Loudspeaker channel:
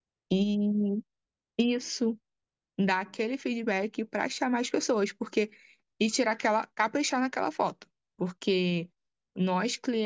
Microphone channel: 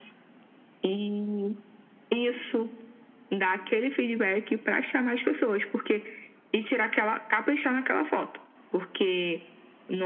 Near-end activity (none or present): none